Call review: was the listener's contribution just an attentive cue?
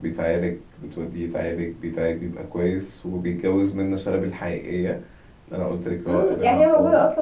No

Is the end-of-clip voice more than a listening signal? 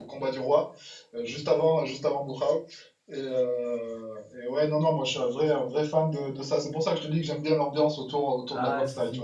Yes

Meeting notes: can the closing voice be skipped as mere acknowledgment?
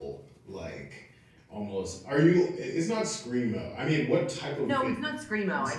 No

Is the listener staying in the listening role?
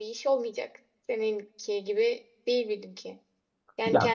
Yes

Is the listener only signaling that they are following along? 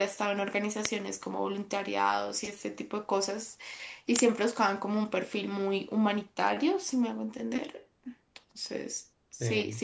Yes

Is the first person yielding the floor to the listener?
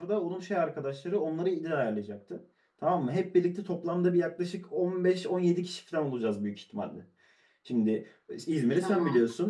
No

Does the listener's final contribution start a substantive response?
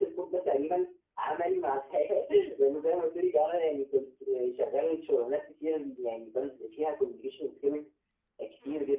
No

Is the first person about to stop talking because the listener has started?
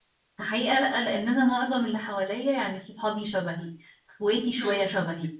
No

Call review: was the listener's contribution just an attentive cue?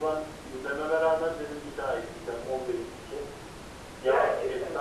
Yes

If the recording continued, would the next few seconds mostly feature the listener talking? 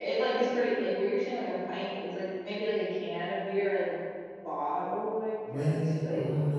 Yes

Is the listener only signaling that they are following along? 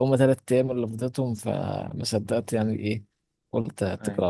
Yes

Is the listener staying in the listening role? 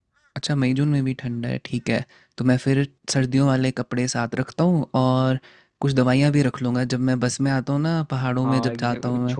No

